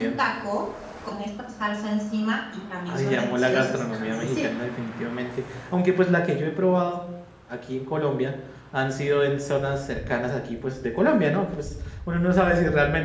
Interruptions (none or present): present